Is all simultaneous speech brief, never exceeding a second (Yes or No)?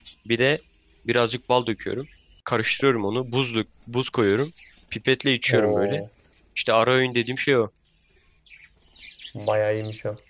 Yes